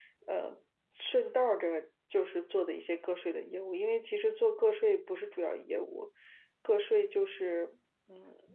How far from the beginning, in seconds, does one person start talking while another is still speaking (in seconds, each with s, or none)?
none